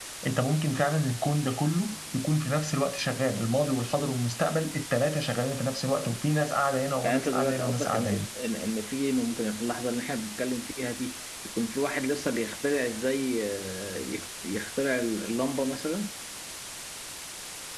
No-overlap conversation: No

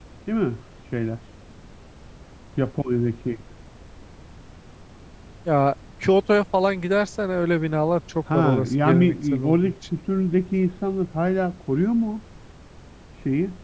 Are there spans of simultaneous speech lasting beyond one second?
Yes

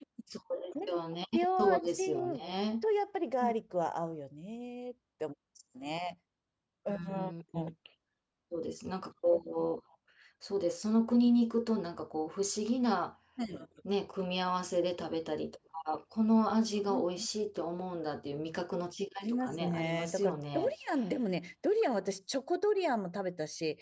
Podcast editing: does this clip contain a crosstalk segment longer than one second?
Yes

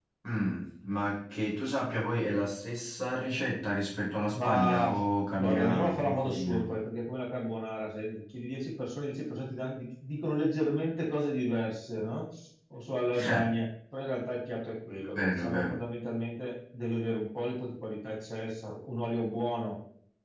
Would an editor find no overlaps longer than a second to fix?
No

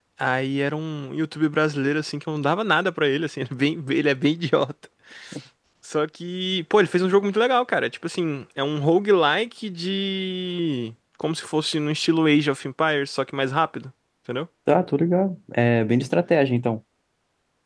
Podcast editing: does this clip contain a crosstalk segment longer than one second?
No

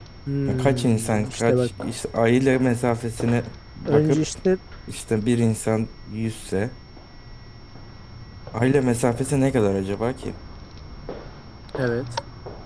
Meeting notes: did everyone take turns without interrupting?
No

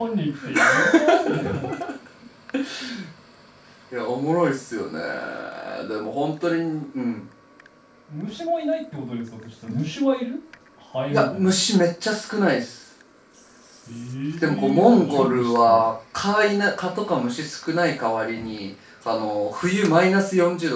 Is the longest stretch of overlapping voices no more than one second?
No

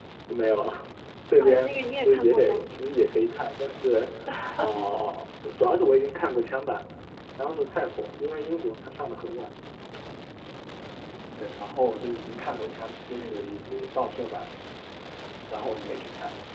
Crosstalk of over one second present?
Yes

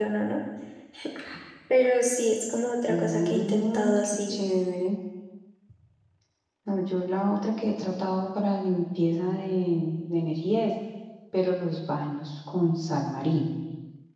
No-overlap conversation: No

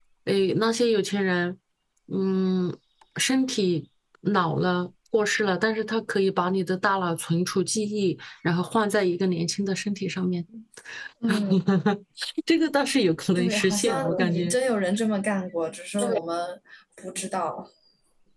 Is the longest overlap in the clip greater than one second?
Yes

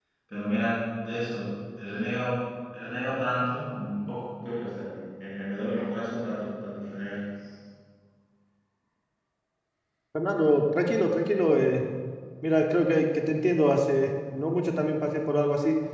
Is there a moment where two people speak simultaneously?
No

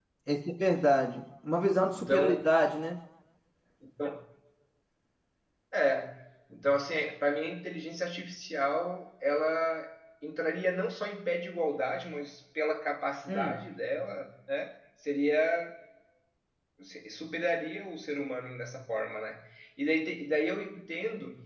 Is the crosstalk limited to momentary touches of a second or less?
Yes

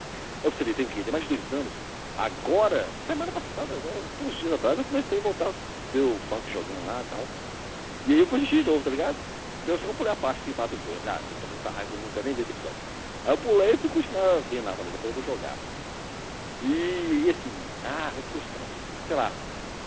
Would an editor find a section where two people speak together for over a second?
No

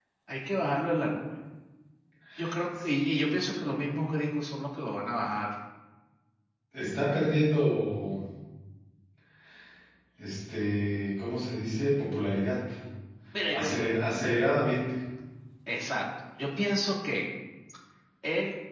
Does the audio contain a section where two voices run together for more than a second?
No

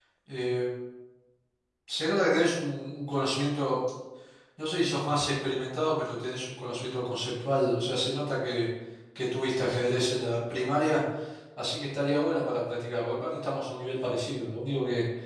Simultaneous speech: No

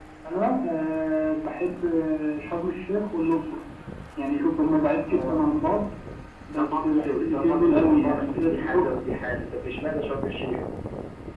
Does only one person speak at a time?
No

